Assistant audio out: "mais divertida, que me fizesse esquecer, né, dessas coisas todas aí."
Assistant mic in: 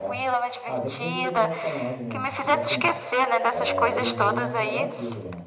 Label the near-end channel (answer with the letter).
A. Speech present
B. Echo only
A